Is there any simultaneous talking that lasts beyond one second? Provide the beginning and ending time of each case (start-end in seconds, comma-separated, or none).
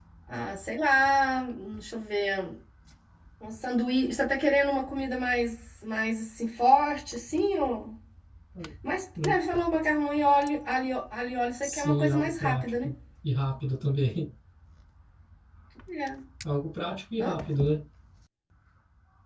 11.6-12.9